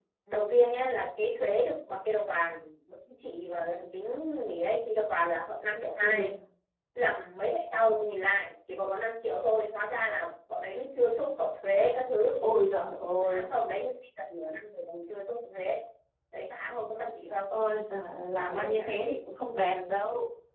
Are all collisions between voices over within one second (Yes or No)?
Yes